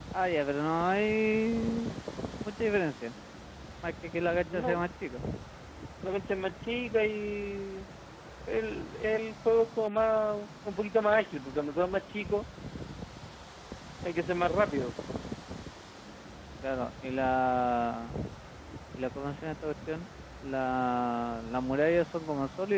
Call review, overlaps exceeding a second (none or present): none